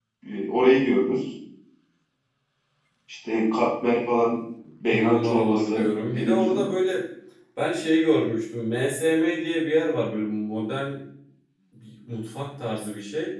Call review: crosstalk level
present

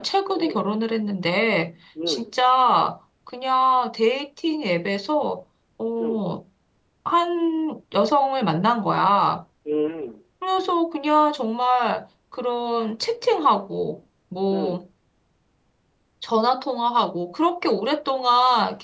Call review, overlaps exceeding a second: none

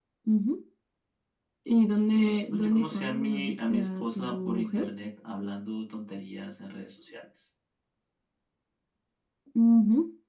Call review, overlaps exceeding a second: present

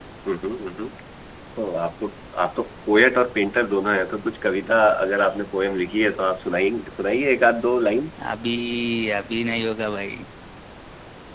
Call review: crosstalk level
none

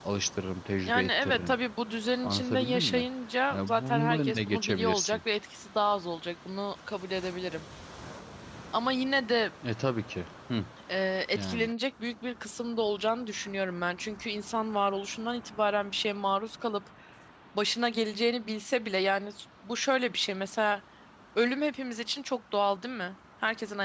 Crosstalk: present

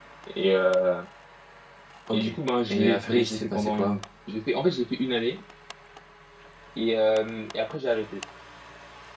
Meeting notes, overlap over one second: present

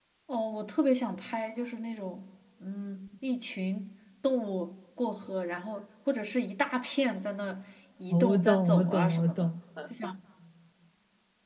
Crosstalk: present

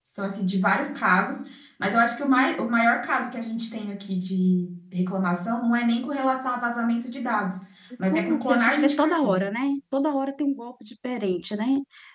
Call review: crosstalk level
present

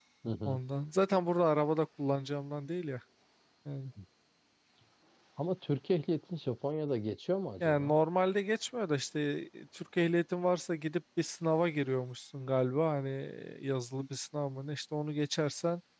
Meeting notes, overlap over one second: none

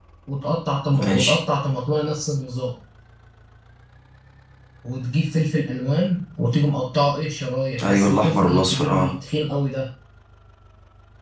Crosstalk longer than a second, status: present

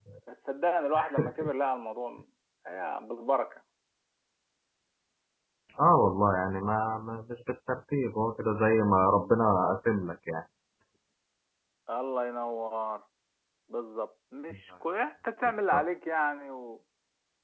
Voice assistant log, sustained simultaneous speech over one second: none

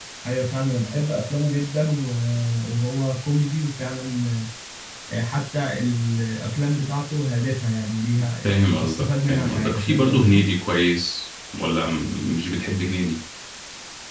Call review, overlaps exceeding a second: present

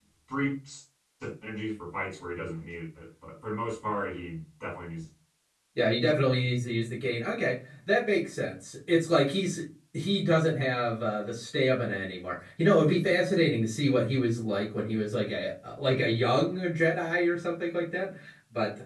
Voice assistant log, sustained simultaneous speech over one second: none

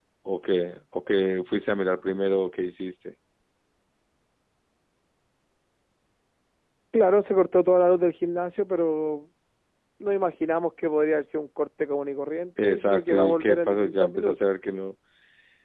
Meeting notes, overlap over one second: present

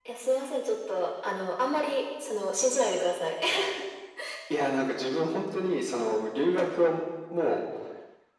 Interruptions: none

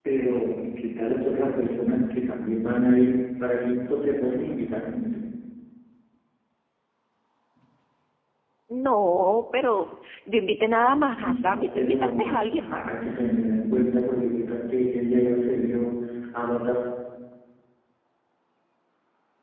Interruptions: present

